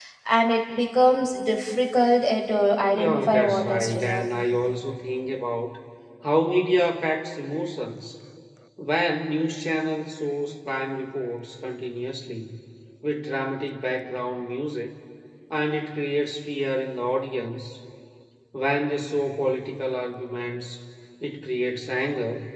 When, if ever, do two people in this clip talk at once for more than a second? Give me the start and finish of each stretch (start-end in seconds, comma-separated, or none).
2.9-4.2